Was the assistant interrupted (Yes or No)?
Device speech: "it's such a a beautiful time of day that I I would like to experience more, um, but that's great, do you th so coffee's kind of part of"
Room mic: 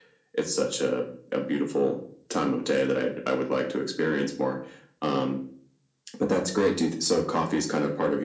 No